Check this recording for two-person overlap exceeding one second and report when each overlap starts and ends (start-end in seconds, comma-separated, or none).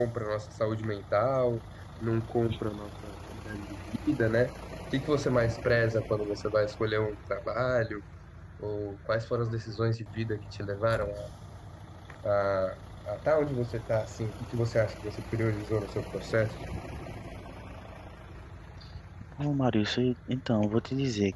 none